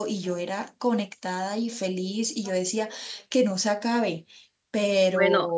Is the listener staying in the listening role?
No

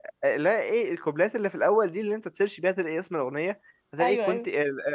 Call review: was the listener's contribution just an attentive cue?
Yes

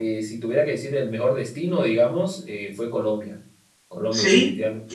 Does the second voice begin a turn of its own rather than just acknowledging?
Yes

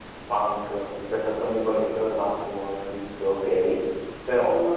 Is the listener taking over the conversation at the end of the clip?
Yes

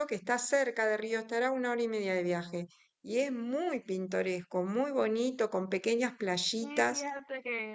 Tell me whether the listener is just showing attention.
No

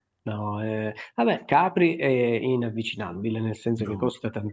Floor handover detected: No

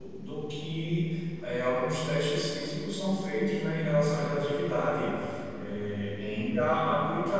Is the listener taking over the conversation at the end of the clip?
No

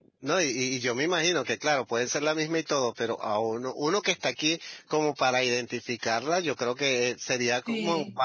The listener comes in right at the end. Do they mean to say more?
No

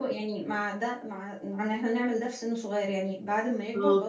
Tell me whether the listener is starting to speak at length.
No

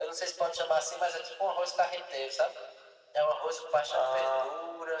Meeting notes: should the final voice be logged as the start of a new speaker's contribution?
No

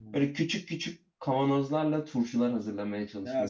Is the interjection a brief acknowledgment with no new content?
No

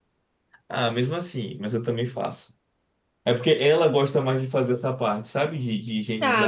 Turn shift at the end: Yes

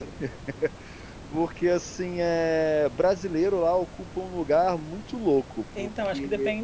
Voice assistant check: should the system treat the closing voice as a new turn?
Yes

